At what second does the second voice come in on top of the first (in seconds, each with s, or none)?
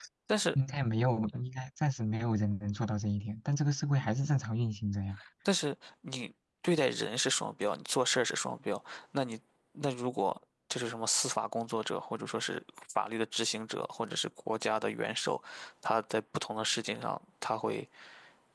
none